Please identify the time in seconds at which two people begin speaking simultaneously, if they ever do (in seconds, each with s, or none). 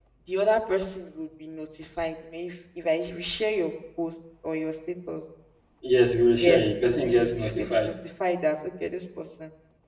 6.4 s